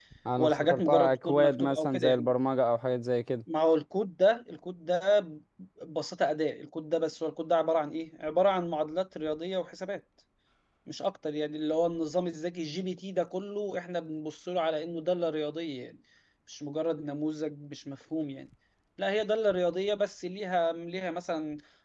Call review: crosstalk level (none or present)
present